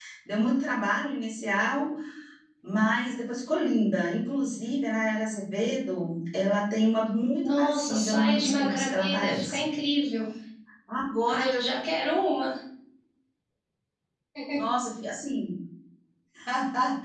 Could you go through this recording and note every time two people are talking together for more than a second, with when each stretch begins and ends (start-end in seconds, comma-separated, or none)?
7.4-9.6